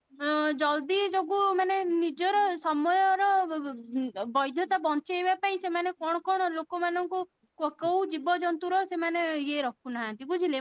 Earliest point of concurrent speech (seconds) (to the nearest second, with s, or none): none